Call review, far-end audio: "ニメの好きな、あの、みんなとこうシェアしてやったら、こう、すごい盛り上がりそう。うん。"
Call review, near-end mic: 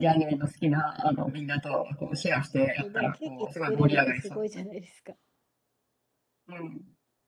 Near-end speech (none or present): present